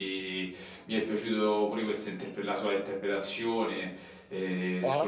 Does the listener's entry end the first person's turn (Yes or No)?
No